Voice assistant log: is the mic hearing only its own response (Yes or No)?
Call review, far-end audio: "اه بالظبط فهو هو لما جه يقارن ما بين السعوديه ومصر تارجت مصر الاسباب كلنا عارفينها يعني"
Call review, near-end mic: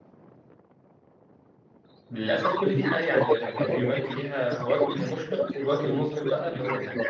No